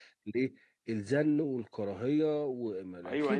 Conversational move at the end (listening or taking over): taking over